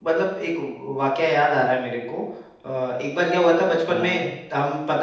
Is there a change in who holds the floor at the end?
No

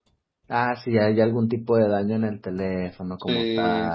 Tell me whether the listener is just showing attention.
No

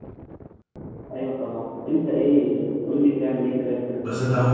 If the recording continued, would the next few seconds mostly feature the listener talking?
Yes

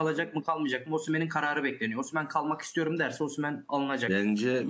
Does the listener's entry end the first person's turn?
Yes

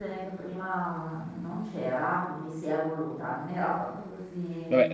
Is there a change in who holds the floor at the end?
Yes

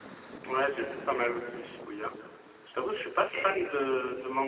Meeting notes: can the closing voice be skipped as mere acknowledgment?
Yes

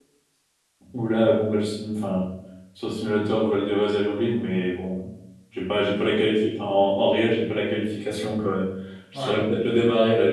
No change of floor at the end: Yes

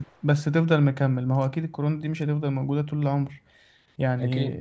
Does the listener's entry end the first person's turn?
No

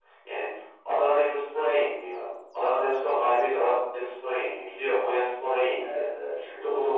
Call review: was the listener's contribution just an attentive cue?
Yes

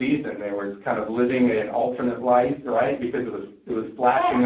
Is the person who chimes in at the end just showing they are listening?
Yes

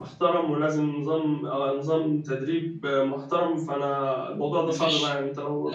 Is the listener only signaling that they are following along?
No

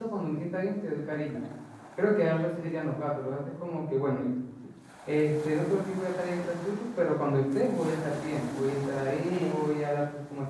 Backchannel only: Yes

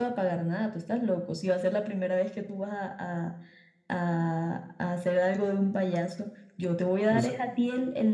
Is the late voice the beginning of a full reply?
No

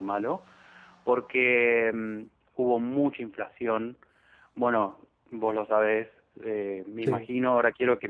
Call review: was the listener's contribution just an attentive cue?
Yes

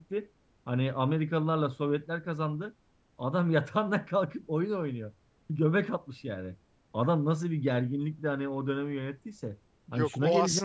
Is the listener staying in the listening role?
No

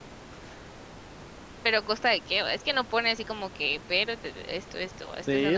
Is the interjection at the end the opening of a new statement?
Yes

